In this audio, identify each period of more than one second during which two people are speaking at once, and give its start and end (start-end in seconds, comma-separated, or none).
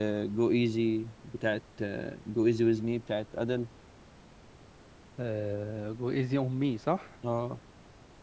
none